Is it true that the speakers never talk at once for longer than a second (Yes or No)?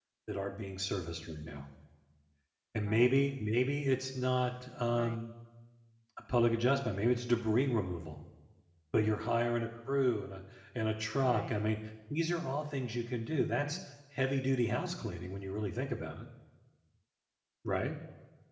Yes